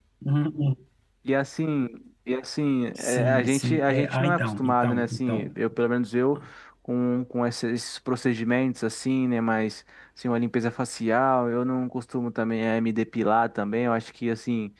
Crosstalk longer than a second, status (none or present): present